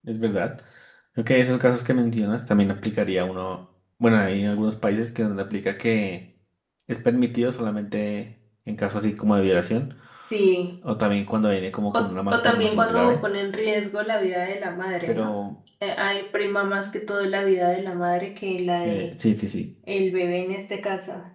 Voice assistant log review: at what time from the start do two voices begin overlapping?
11.9 s

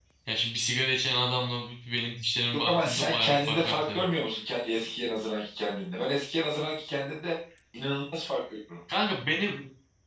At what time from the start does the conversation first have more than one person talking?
2.6 s

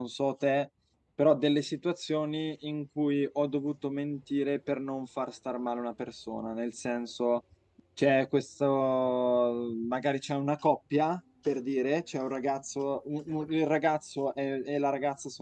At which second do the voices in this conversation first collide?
none

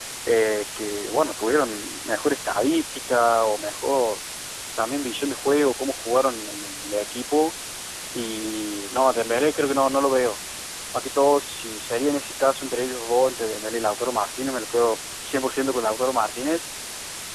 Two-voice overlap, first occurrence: none

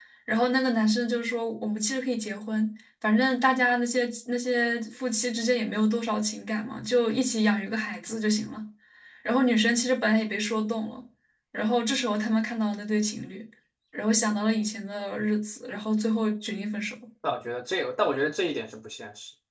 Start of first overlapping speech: none

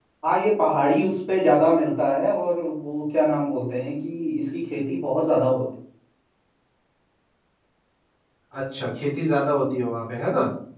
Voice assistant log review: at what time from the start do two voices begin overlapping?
none

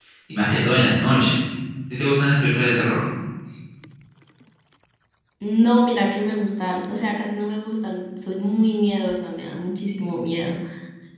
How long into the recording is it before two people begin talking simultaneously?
none

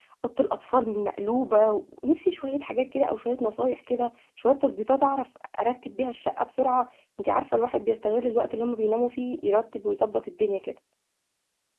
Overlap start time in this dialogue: none

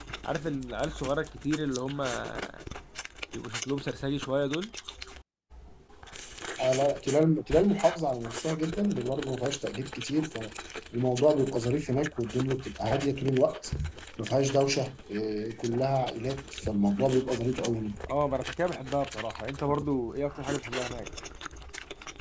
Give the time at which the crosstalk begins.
none

